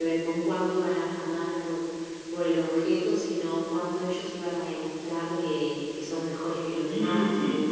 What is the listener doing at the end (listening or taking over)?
taking over